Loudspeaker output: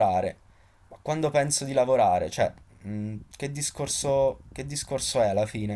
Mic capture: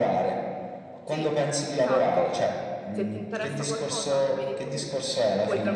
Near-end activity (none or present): present